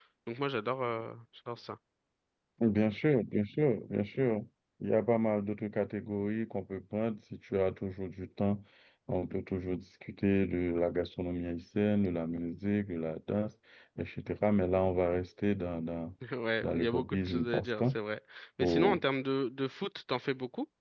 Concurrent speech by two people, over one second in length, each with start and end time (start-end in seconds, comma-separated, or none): 16.6-18.0